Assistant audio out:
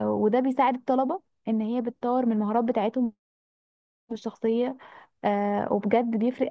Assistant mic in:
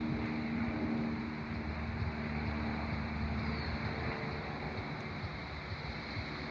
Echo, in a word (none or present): none